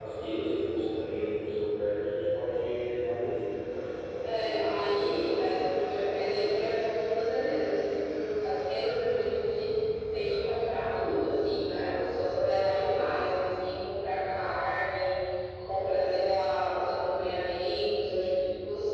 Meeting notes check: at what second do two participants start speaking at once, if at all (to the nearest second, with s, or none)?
4 s